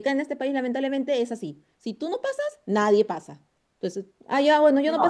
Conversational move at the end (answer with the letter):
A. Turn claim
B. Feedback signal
B